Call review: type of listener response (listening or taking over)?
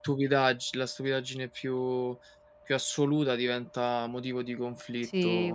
taking over